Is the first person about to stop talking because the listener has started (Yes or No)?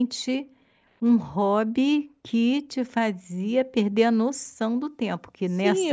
Yes